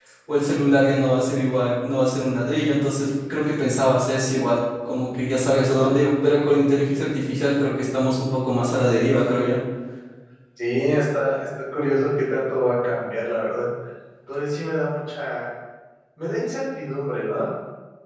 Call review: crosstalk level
none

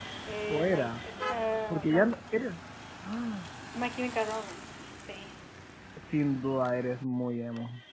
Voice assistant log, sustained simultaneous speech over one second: none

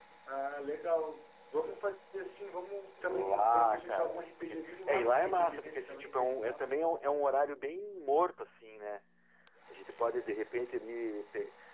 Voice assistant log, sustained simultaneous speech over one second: present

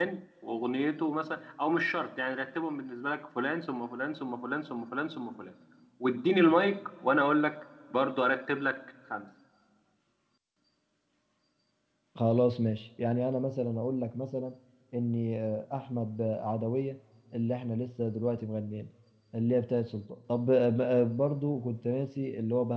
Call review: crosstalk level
none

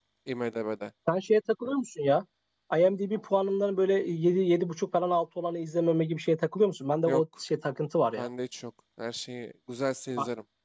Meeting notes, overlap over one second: none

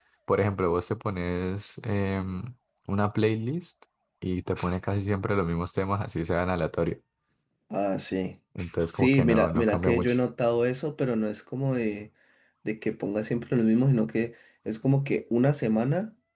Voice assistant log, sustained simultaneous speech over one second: present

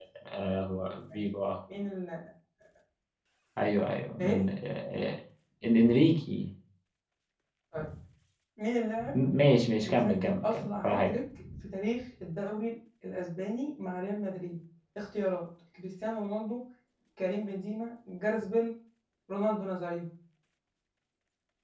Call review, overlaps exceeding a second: present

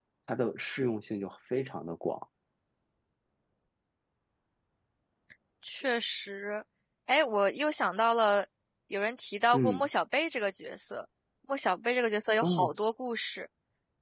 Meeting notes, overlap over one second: none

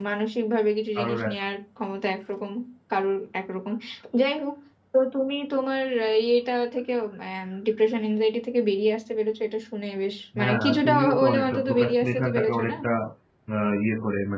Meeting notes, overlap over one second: present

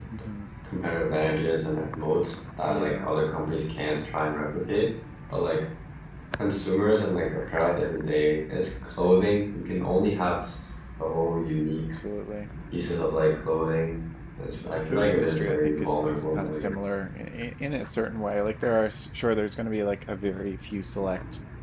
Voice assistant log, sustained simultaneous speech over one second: present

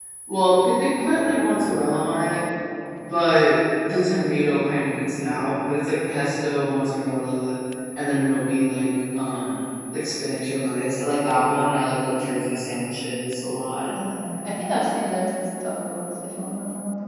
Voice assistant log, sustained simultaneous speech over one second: none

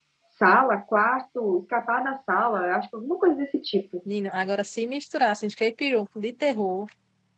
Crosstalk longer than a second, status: none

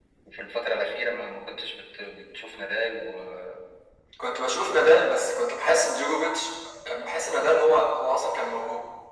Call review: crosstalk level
none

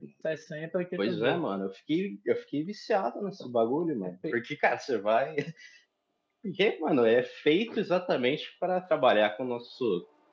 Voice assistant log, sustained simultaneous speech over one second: none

